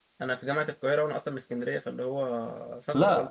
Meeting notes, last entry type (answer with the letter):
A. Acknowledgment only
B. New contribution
B